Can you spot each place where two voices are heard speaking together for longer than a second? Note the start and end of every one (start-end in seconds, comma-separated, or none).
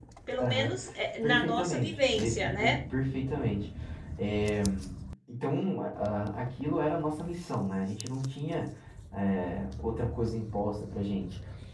1.2-2.8